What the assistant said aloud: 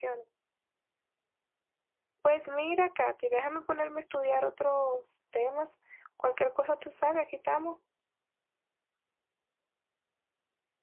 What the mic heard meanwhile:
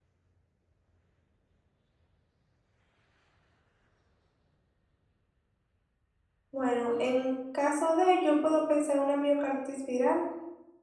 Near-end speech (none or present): present